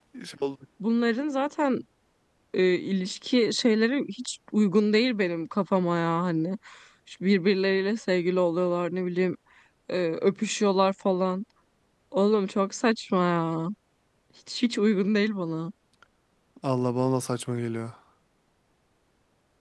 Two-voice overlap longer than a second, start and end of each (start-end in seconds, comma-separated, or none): none